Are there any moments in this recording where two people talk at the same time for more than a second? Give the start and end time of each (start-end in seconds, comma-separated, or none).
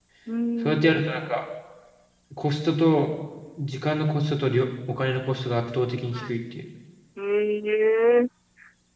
none